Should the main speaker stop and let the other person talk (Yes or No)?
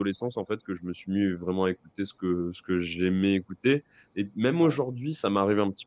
No